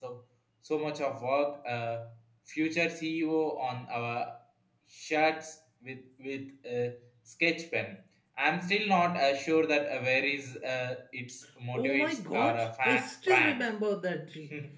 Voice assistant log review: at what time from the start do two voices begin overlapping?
12 s

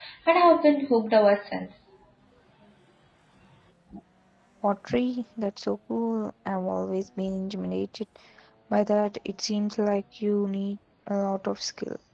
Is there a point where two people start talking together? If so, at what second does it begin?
none

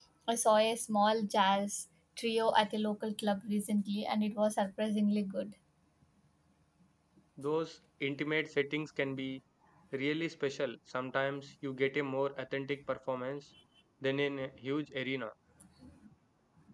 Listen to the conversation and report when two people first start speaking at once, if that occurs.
none

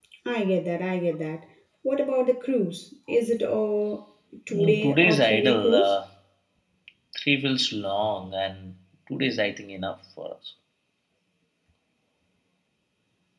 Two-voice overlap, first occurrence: 5 s

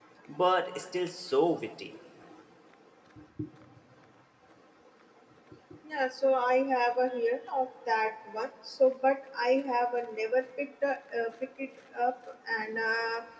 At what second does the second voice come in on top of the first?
none

